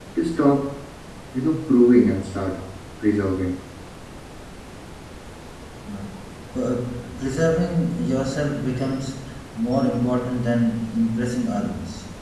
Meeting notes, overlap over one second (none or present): none